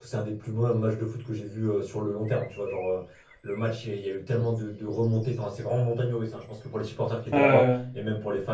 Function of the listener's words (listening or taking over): listening